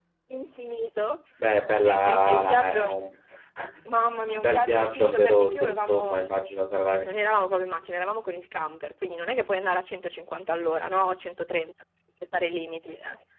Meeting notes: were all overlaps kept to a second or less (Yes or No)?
No